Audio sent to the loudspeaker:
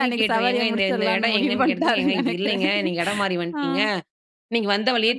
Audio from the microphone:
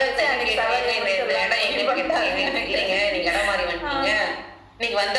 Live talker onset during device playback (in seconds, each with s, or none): none